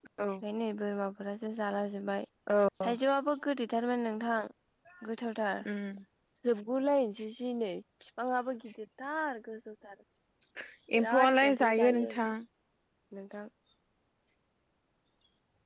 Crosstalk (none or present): present